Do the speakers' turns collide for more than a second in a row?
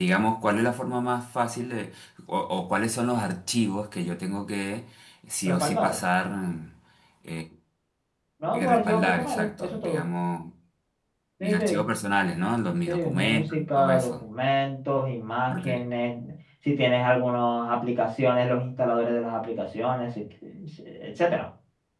Yes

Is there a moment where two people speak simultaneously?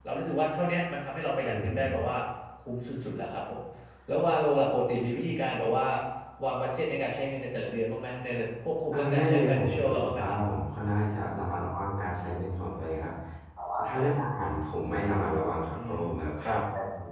Yes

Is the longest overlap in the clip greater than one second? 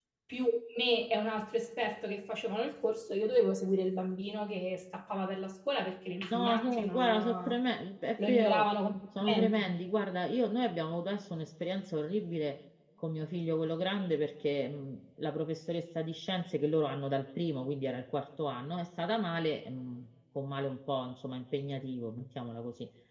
Yes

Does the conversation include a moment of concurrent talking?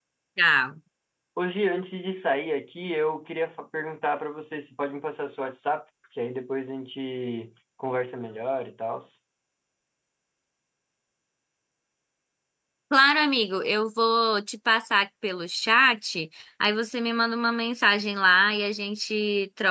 No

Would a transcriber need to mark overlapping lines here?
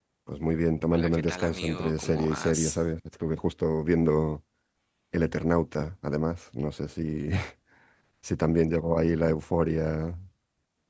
Yes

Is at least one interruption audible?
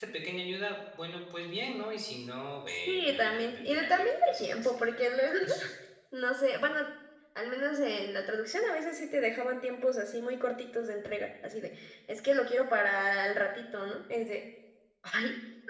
Yes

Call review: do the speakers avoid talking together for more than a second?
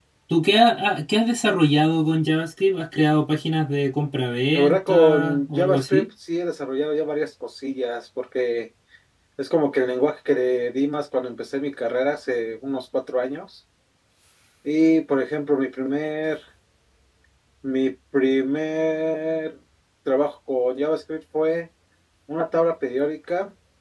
No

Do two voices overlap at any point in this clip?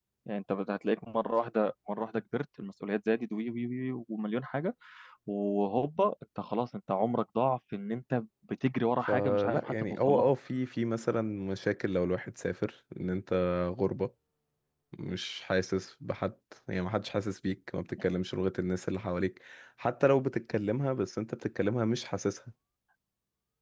Yes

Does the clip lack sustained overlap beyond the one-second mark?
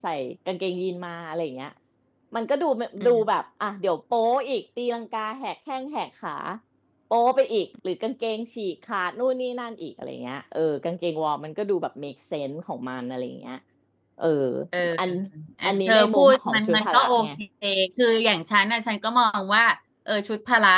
No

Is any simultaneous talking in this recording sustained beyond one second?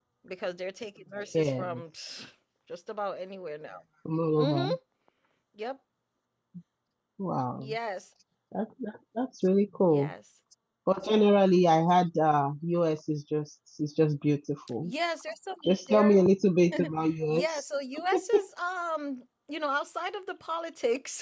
No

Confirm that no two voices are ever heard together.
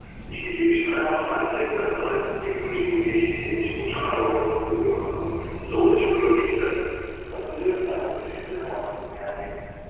Yes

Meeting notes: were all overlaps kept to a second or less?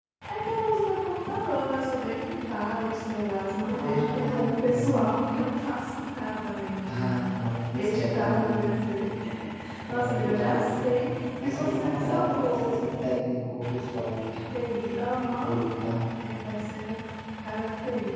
No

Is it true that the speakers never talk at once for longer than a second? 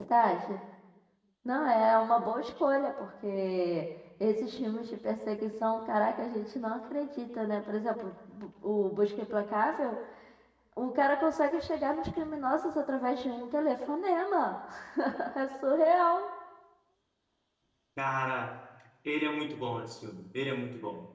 Yes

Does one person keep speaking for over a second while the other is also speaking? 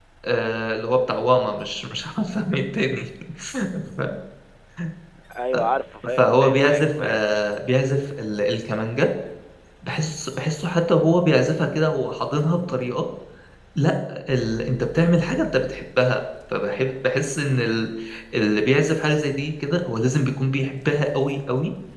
Yes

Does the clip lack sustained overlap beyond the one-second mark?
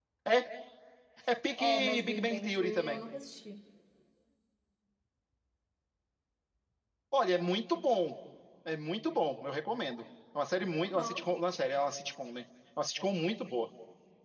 No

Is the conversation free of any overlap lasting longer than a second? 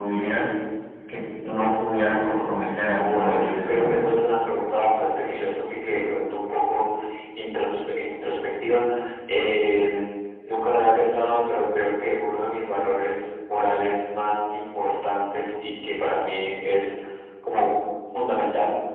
No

